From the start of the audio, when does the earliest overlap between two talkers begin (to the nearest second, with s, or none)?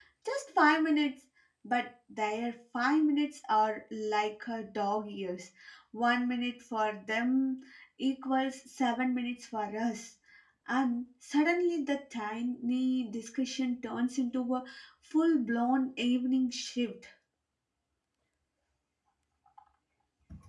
none